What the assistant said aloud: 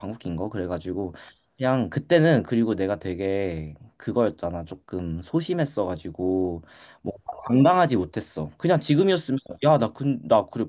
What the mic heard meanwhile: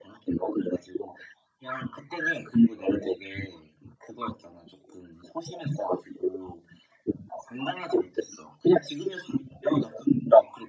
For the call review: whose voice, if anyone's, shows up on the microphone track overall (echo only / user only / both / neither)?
echo only